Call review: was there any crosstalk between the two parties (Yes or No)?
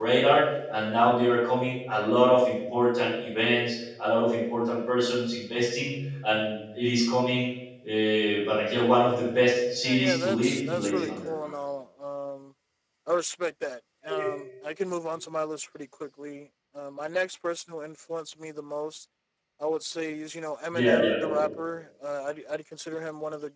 Yes